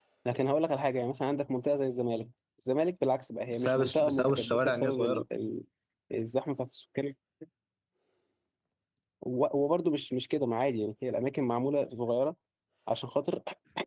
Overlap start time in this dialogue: 3.5 s

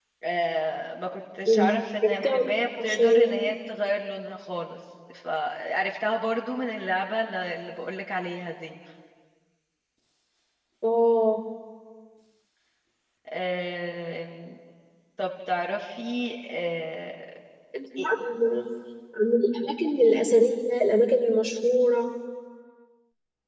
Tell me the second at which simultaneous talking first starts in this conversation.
1.5 s

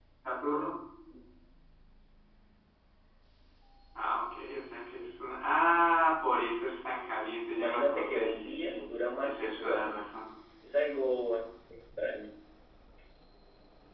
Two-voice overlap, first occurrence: 7.5 s

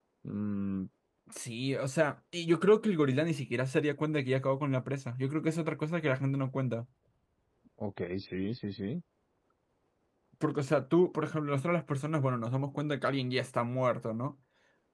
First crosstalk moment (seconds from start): none

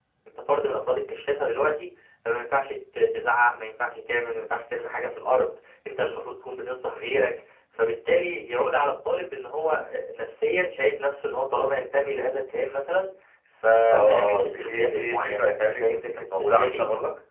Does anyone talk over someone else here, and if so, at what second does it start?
13.9 s

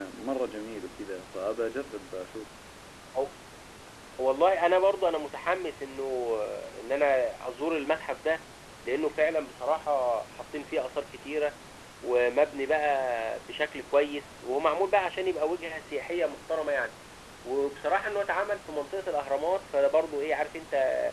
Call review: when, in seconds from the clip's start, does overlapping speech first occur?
none

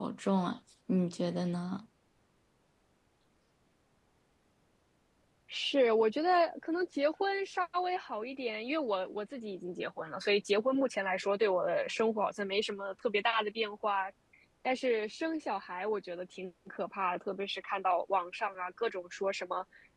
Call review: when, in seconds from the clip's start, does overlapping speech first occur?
none

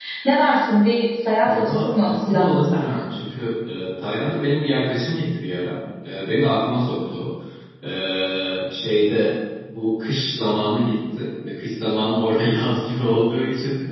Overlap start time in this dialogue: 1.4 s

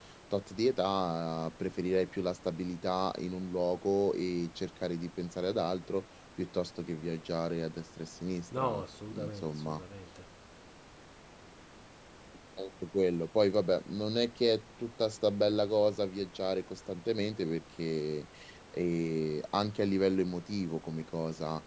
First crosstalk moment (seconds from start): 8.5 s

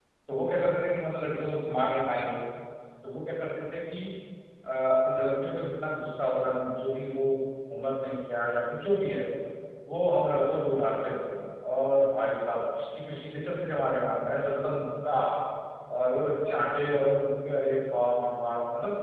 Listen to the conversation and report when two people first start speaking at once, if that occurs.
none

